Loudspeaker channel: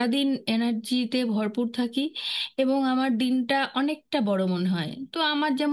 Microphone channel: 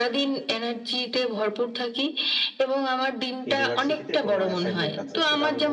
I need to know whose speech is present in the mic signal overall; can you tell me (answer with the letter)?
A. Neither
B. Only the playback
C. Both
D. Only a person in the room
C